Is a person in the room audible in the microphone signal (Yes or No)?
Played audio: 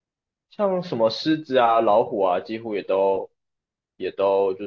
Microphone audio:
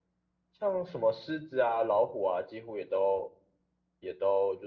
No